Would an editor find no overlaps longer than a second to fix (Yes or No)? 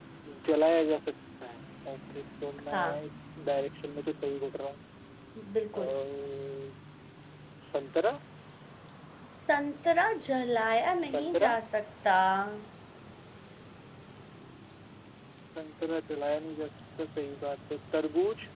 Yes